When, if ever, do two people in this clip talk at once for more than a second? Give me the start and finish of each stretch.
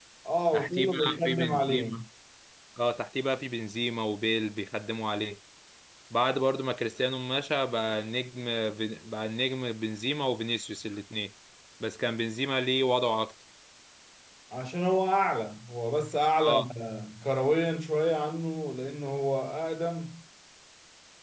0.5-2.0

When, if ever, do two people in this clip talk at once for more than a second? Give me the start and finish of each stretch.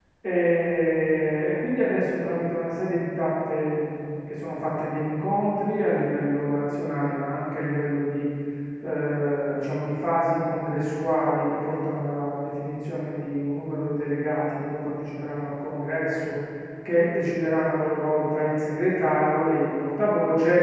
none

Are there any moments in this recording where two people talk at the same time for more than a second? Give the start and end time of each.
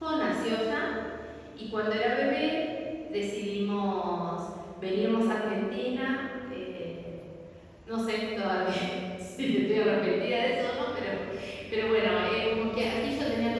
none

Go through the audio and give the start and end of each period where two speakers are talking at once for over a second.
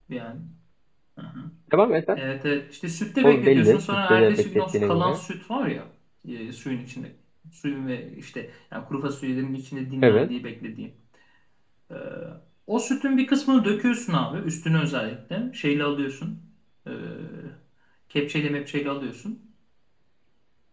3.2-5.2

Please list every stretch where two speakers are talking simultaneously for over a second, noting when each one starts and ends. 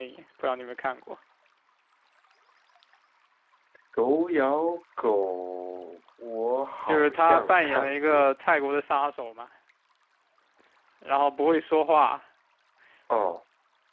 6.9-8.3

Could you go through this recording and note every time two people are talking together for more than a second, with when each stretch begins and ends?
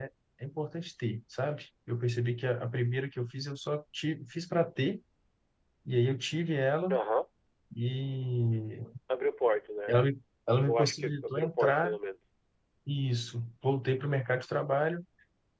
10.6-12.0

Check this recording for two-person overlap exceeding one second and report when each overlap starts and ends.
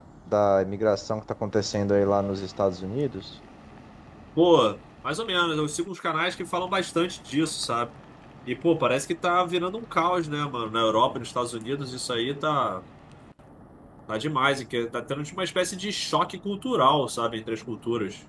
none

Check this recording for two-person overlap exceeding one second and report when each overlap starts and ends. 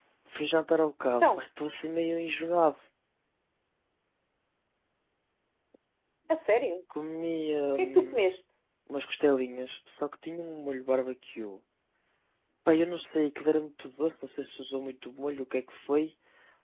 none

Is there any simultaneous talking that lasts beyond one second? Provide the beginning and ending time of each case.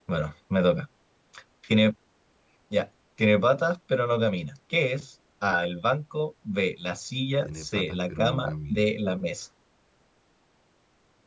7.4-8.8

